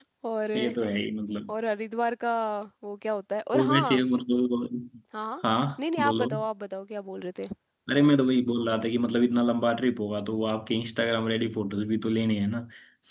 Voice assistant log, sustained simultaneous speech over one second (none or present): none